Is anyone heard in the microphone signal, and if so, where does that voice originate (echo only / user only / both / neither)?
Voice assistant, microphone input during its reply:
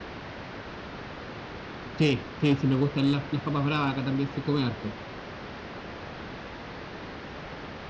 user only